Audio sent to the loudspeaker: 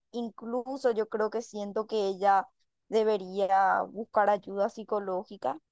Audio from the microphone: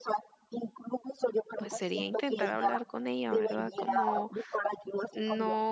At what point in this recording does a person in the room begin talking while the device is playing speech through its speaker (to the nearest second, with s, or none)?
2 s